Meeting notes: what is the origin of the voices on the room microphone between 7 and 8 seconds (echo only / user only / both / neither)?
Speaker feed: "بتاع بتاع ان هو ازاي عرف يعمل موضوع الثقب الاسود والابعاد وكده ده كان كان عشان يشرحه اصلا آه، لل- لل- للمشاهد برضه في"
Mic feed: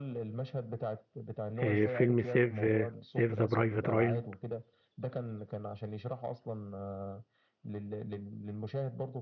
echo only